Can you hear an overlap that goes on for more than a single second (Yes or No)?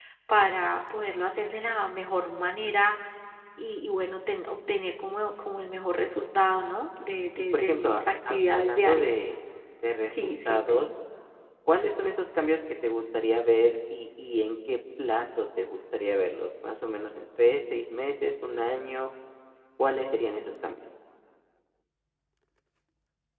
Yes